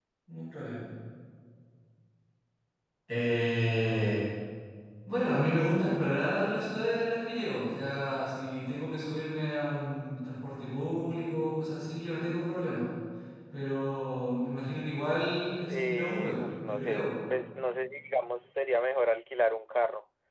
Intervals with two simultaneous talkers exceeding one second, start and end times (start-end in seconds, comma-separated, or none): 15.7-17.1